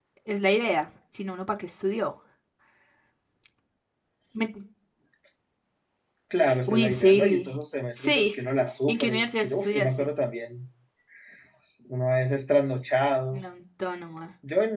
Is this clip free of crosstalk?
No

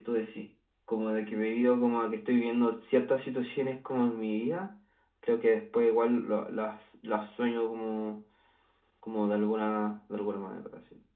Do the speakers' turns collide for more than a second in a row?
No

